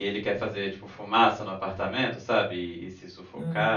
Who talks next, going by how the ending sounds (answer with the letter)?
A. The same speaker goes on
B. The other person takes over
A